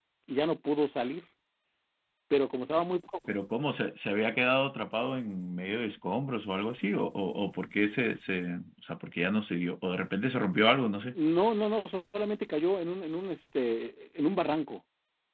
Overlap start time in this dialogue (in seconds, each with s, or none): none